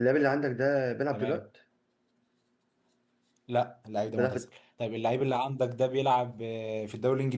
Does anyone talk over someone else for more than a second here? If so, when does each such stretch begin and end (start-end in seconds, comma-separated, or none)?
none